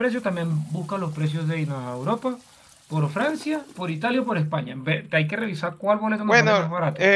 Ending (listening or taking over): taking over